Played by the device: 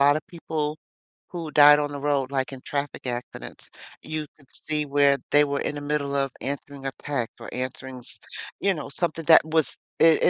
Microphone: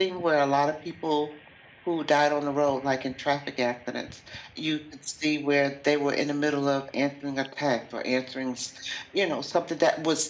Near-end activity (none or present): none